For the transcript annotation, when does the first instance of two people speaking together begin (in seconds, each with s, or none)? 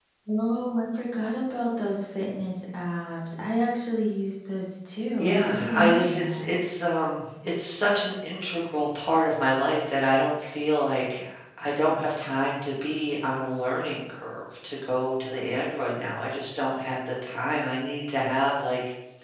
5.2 s